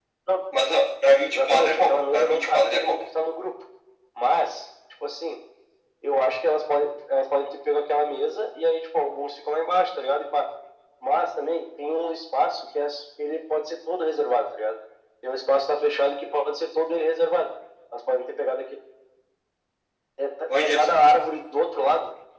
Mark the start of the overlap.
1.3 s

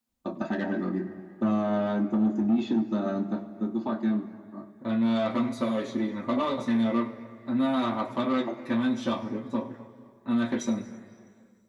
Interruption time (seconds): none

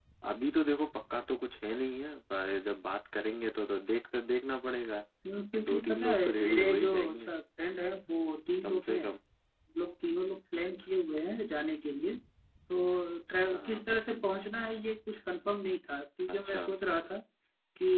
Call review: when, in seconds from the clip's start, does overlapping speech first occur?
5.5 s

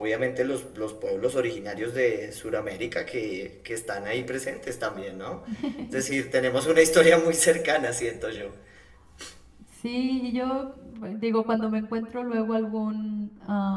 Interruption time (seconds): none

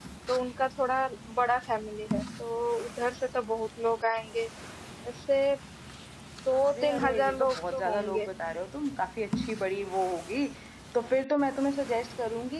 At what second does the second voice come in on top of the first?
6.7 s

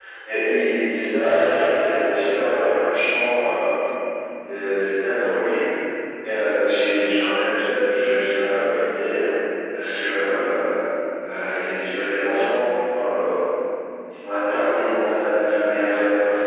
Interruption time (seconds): none

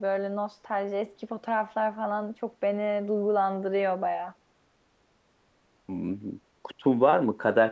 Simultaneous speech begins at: none

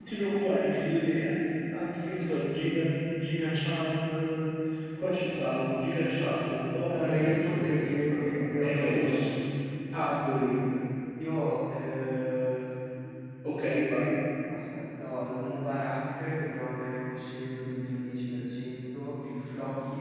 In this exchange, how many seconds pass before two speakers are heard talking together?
6.9 s

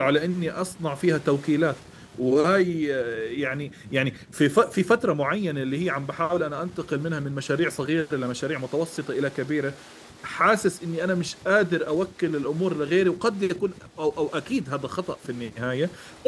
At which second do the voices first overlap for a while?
none

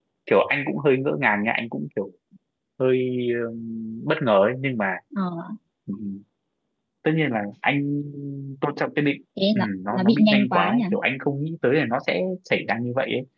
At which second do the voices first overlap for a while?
9.4 s

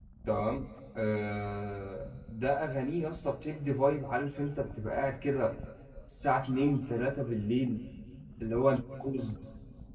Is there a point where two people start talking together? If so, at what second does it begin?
none

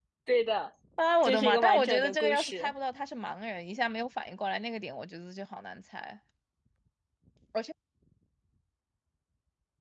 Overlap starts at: 1.2 s

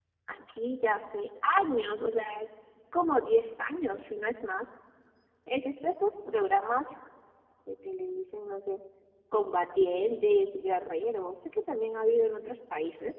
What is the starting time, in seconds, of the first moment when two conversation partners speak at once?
none

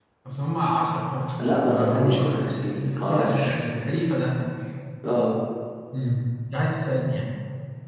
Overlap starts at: 1.4 s

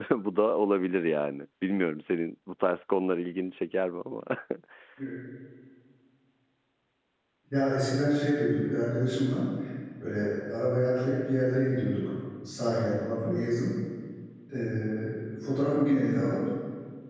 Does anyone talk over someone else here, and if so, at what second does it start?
none

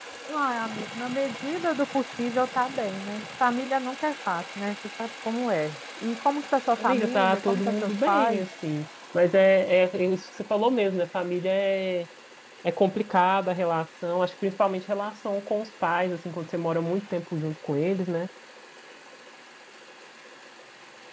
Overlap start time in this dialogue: 6.7 s

